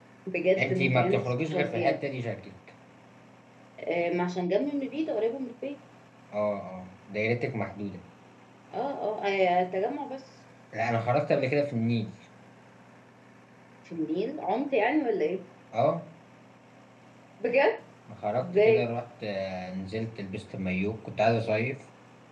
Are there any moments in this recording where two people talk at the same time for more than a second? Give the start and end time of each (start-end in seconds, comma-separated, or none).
0.6-2.0